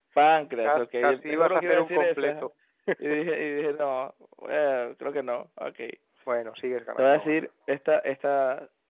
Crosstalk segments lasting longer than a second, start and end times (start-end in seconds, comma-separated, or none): 0.6-2.3